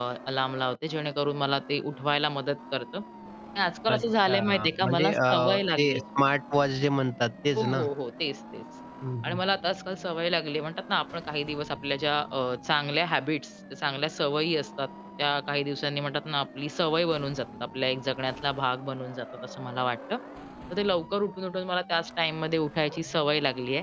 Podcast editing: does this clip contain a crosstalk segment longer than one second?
Yes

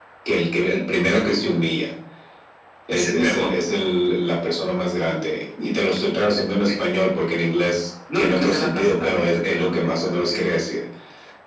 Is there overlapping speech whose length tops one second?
Yes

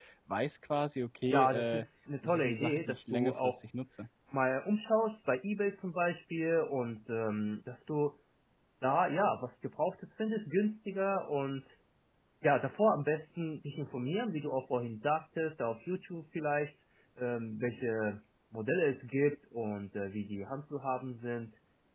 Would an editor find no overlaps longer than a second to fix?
No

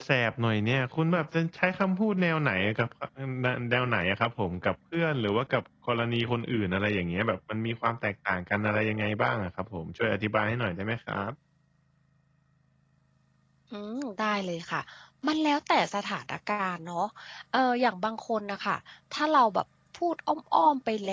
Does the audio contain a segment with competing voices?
No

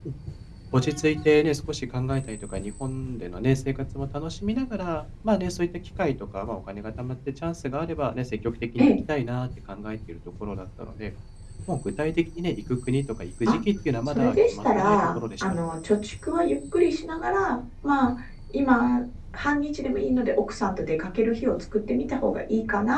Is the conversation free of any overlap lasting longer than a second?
No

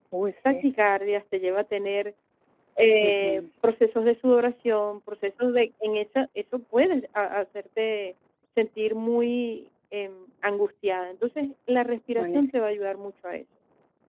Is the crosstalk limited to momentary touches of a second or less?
Yes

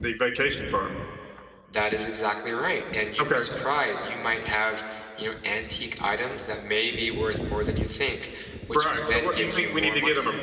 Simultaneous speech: Yes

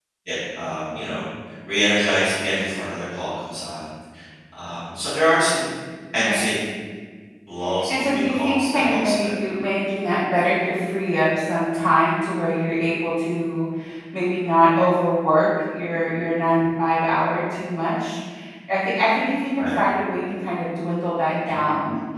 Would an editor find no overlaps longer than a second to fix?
No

